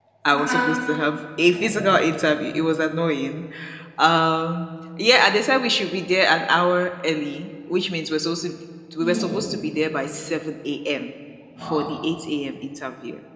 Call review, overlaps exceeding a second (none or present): none